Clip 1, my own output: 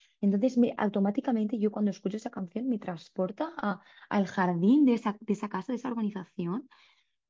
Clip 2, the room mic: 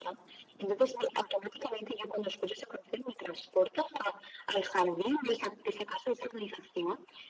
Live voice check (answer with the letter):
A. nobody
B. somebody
A